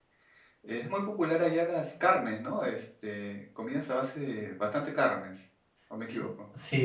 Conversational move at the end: taking over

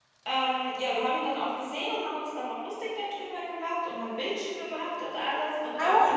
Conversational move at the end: taking over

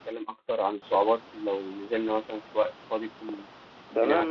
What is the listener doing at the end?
taking over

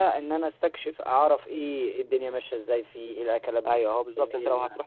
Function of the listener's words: taking over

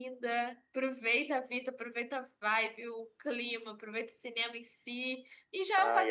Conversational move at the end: listening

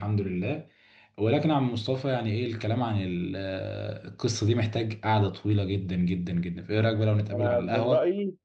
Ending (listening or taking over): taking over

